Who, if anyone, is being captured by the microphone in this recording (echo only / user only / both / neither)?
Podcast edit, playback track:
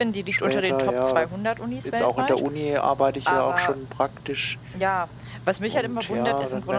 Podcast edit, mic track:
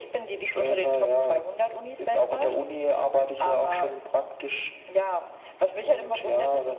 echo only